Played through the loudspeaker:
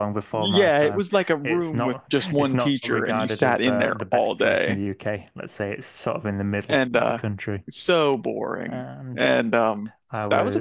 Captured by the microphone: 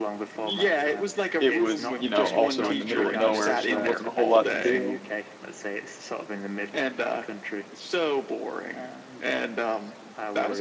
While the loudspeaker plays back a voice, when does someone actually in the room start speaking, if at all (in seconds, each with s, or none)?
1.4 s